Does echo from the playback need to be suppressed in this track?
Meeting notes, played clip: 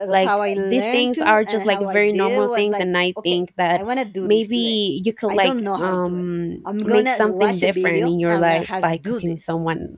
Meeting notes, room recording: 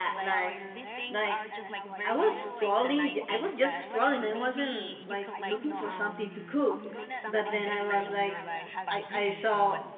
Yes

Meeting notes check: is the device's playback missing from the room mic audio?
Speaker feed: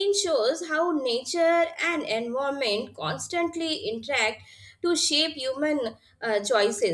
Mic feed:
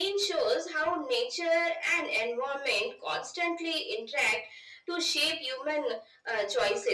No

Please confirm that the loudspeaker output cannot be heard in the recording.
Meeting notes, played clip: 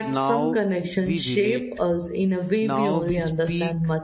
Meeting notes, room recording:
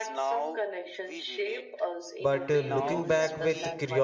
No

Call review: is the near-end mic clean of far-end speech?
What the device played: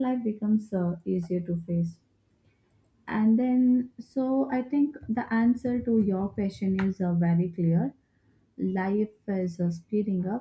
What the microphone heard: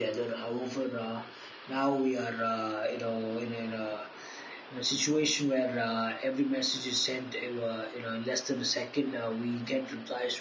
Yes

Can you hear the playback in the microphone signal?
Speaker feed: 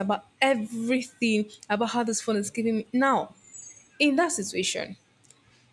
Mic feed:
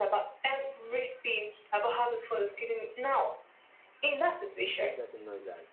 Yes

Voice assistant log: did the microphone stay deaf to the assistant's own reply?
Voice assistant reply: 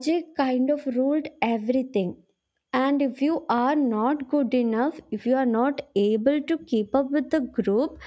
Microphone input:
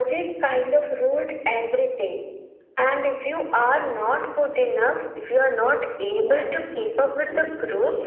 No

